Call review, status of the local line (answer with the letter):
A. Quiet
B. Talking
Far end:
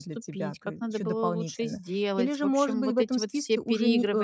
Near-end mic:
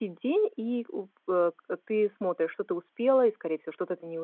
B